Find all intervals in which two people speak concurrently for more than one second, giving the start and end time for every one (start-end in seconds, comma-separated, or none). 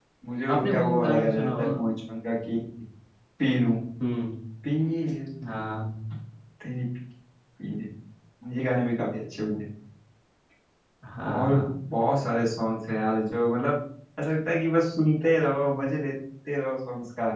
0.6-1.8